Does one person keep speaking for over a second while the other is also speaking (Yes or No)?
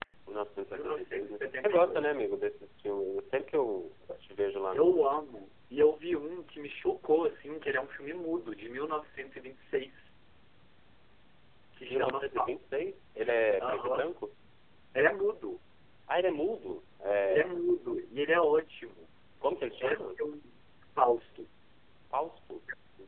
Yes